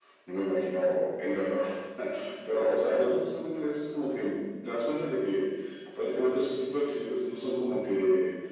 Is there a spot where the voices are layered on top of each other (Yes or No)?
No